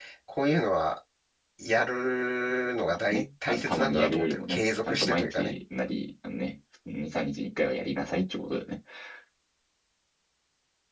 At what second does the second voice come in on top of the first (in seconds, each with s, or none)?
3.1 s